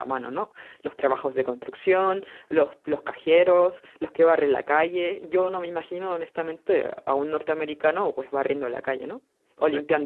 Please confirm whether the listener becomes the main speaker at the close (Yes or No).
Yes